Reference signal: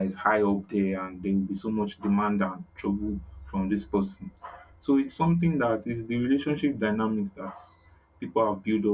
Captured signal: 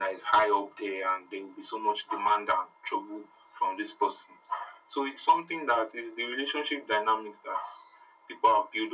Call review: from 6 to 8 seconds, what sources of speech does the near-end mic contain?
echo only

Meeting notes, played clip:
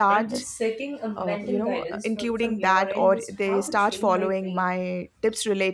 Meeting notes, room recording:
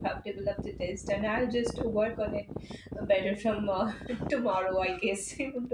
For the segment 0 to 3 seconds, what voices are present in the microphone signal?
user only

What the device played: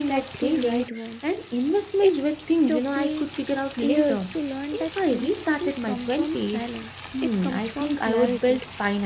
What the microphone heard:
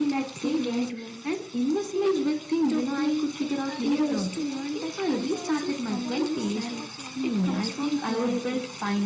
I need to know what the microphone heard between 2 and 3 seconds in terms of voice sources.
both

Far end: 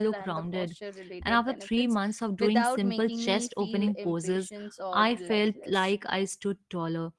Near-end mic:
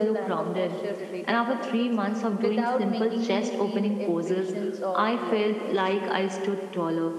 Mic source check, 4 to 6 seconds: echo only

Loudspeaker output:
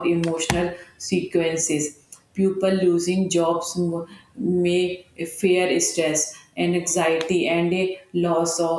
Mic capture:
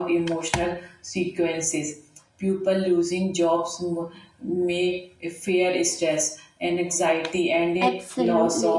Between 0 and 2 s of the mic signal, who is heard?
echo only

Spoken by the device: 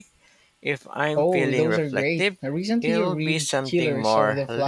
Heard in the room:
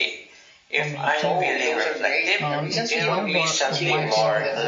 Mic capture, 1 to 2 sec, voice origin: both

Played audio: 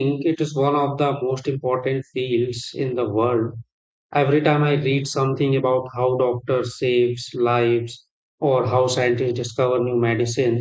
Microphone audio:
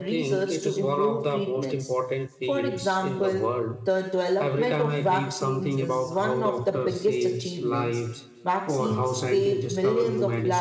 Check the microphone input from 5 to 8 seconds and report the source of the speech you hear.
both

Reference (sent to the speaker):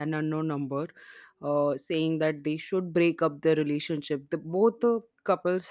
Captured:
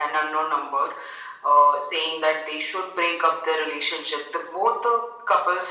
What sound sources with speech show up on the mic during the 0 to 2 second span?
echo only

